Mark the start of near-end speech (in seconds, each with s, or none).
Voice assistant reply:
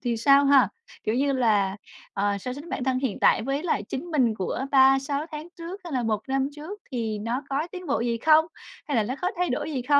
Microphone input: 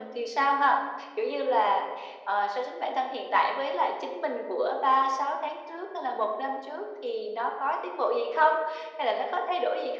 none